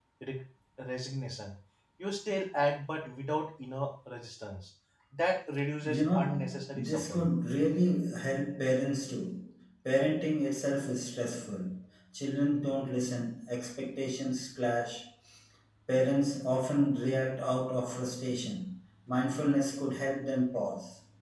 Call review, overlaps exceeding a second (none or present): present